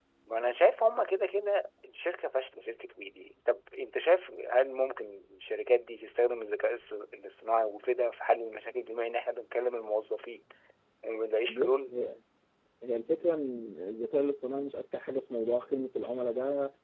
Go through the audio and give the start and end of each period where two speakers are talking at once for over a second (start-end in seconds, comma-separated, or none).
none